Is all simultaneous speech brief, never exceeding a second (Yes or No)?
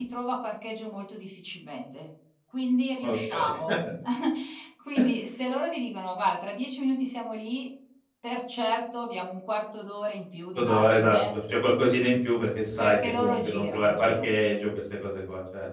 No